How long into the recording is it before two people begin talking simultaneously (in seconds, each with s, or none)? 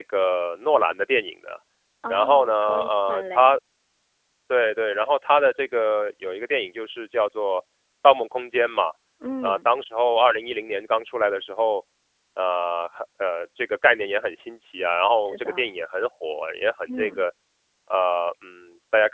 2.1 s